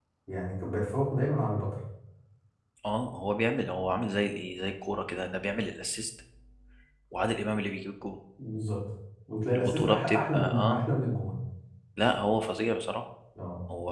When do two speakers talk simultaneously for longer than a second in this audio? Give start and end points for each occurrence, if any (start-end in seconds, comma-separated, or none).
9.5-10.9